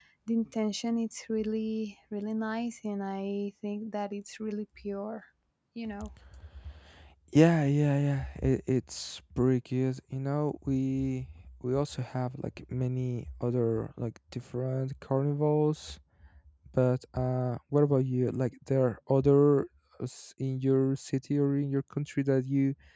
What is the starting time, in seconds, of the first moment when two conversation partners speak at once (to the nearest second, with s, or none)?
none